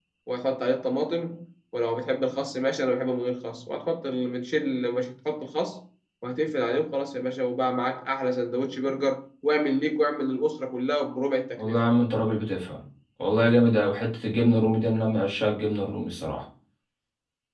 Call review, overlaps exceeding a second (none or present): none